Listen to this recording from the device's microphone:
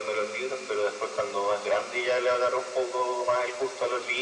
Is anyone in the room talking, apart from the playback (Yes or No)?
No